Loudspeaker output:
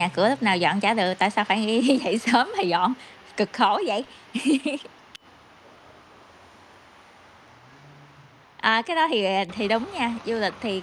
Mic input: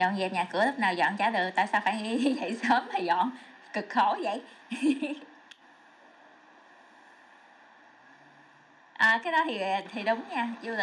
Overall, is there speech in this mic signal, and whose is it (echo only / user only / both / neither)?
echo only